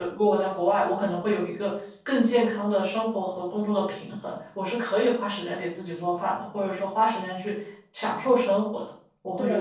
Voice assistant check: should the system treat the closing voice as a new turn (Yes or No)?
Yes